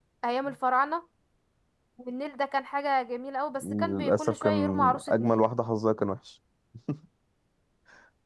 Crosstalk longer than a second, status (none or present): present